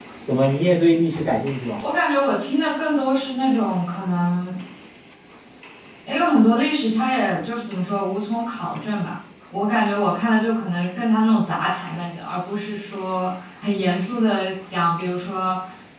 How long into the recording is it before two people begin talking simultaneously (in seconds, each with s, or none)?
none